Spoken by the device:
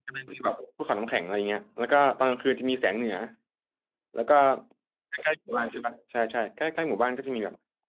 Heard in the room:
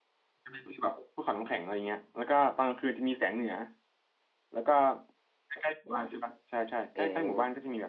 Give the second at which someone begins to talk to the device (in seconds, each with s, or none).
7.0 s